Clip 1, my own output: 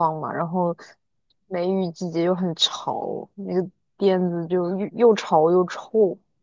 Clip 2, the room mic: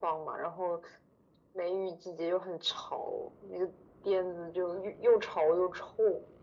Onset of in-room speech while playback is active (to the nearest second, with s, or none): none